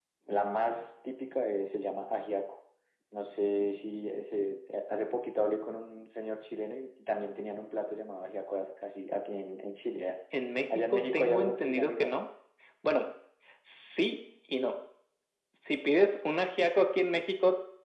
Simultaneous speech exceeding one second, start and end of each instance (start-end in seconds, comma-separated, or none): 10.7-12.1